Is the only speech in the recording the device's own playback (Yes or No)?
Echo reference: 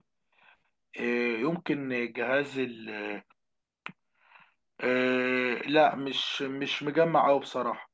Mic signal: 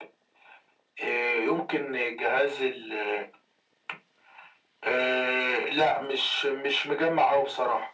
Yes